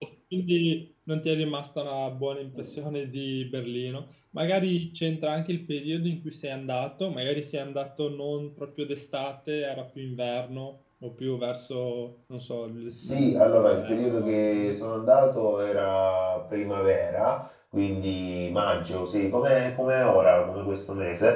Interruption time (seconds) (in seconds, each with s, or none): 13.0 s